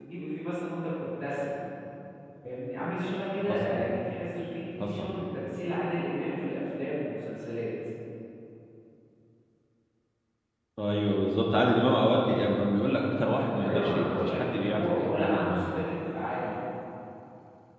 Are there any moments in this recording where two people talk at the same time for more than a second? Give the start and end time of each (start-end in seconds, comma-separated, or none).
13.6-15.7